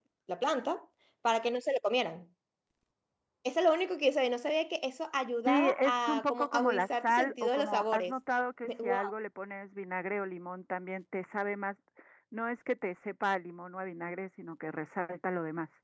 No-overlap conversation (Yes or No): No